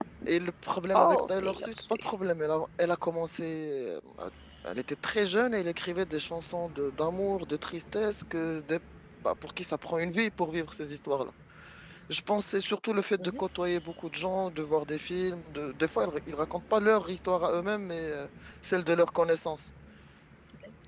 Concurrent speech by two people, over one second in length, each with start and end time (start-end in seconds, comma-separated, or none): 0.9-2.2